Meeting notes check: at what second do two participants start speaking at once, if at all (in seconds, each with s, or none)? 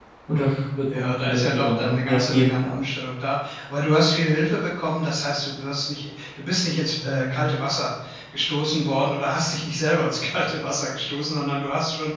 0.9 s